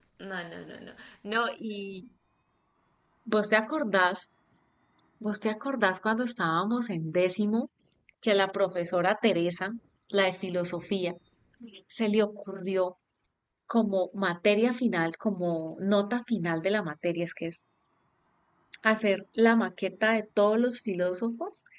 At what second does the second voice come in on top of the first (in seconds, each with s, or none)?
none